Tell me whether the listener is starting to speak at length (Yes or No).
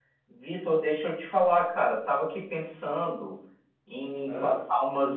No